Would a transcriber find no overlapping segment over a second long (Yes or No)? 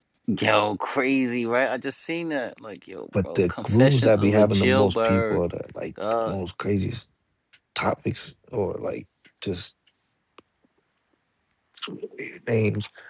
No